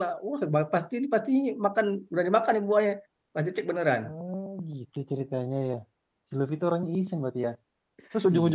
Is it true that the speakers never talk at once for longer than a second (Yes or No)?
Yes